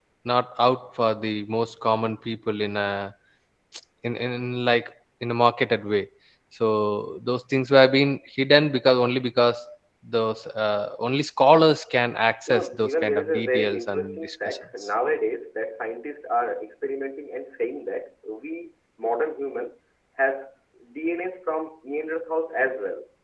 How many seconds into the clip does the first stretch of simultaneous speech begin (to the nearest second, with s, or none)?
12 s